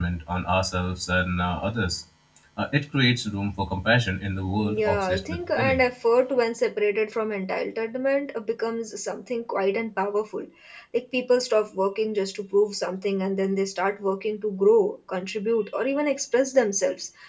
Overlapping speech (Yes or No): Yes